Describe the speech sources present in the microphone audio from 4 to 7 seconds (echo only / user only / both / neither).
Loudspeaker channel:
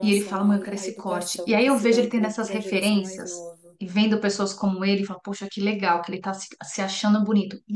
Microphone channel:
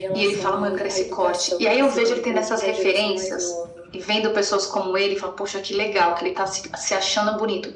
echo only